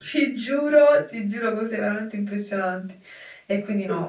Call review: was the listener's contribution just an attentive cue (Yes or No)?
Yes